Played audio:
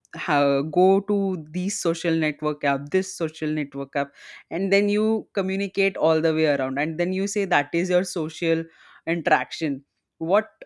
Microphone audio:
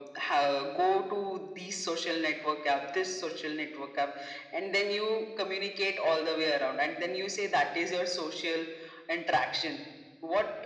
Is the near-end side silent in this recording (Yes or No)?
Yes